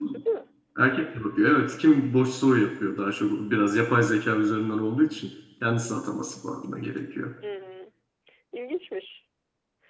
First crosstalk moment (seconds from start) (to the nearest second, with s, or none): none